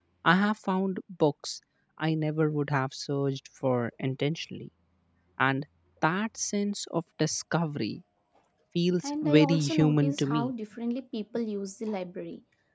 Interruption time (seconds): 9.0 s

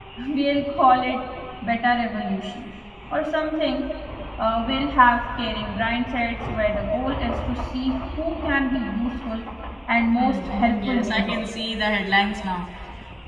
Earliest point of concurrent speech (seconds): 10.1 s

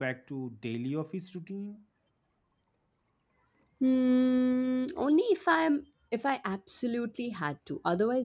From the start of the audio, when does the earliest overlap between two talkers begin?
none

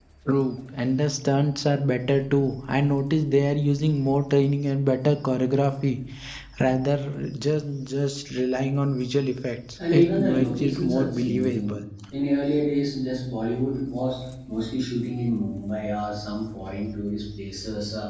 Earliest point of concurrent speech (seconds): 9.8 s

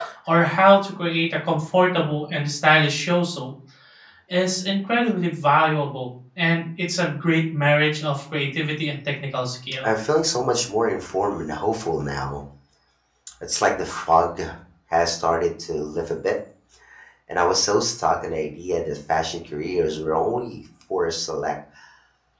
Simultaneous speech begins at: none

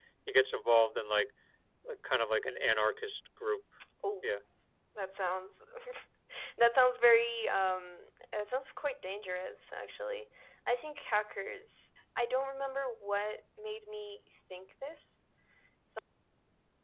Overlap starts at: none

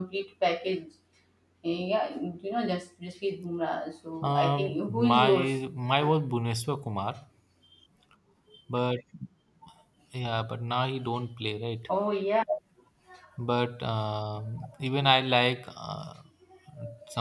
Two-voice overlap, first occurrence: 4.2 s

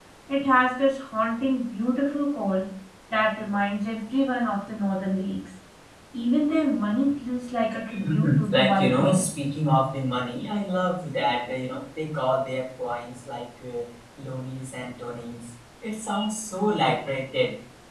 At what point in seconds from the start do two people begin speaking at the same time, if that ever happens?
7.9 s

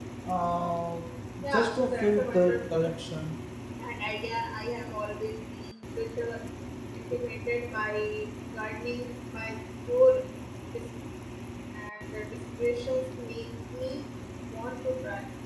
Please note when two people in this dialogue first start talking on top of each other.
1.5 s

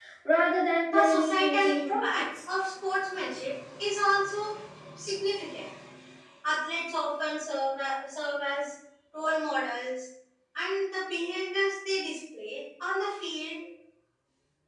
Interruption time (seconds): 0.8 s

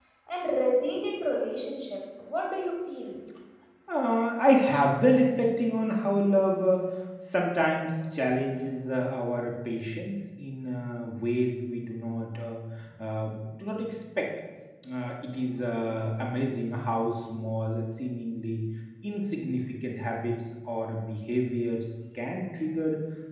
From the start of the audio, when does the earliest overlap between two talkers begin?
none

